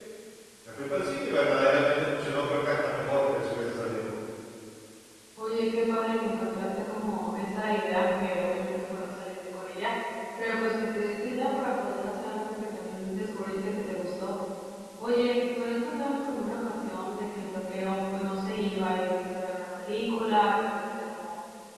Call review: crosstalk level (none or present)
none